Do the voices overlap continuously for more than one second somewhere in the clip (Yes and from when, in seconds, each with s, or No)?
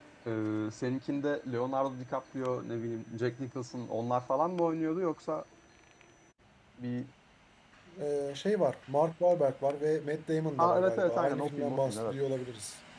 Yes, from 10.6 s